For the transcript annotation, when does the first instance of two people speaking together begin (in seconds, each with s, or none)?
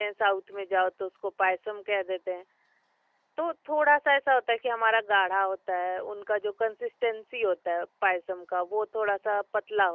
none